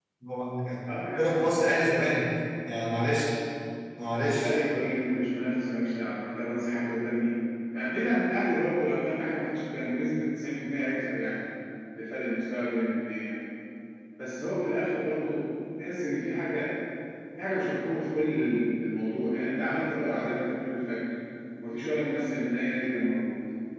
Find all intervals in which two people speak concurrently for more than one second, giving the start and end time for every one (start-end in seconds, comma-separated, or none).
none